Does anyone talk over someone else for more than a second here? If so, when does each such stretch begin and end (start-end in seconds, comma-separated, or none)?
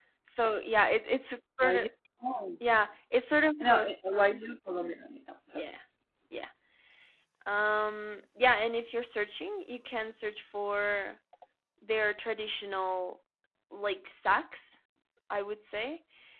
none